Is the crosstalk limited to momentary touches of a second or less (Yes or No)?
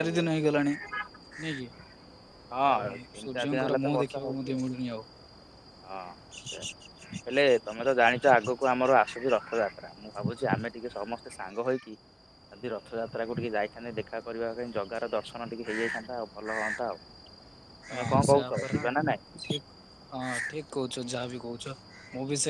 No